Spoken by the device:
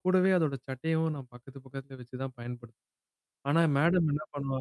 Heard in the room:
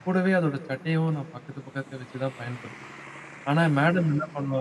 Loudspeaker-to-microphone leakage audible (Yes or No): Yes